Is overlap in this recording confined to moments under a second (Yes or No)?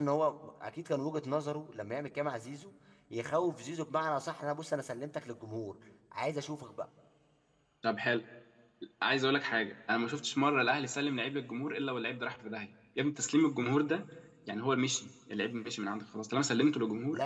Yes